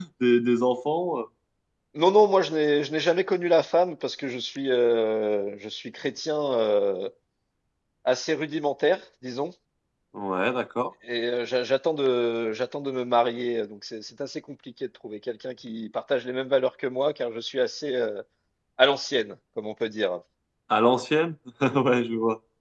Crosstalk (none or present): none